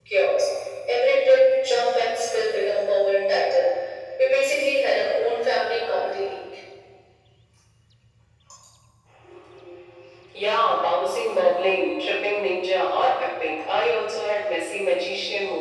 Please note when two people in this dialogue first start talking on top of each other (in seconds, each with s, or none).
none